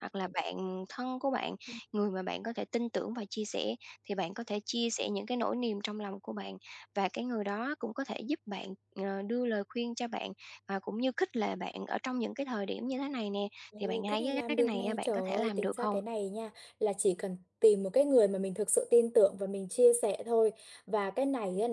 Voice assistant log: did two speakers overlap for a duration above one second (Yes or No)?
Yes